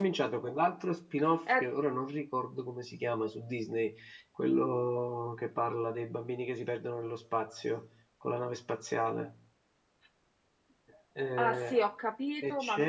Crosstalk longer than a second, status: none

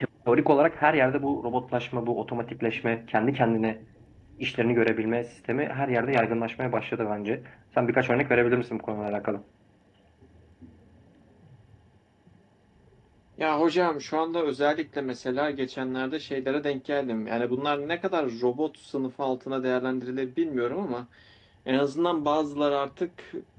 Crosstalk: none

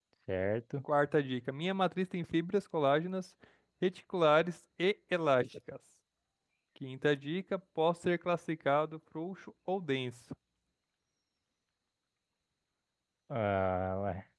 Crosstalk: none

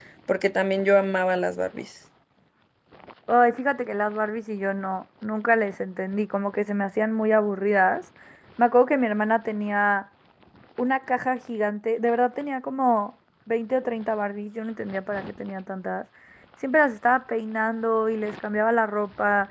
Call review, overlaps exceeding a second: none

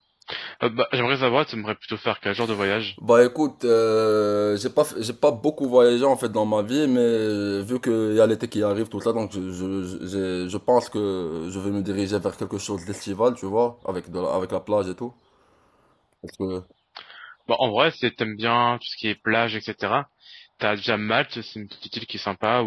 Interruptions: none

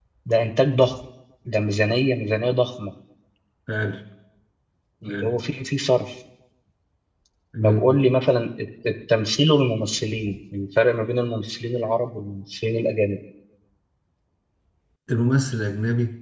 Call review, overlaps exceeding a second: none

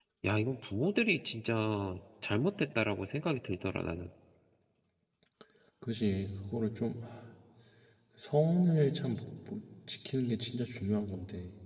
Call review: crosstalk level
none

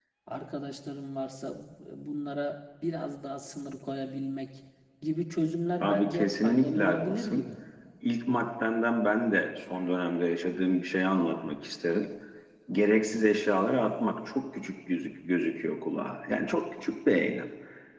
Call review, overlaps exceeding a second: present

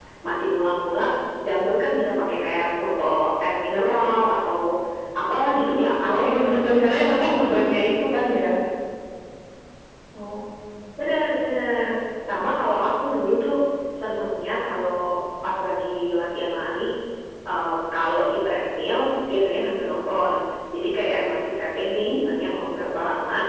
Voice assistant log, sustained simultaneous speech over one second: present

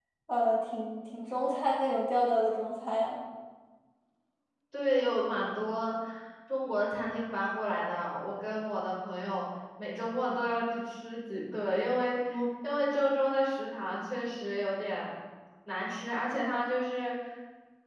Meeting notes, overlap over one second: none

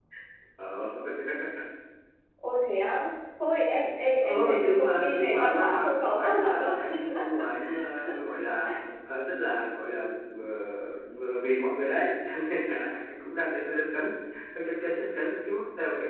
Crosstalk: present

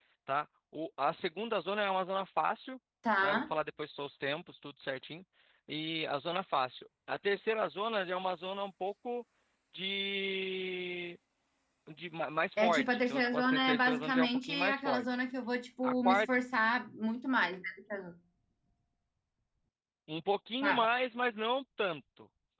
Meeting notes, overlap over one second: present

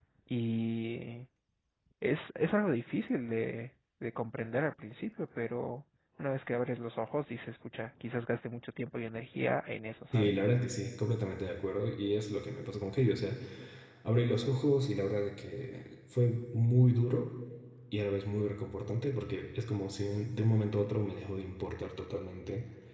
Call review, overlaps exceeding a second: none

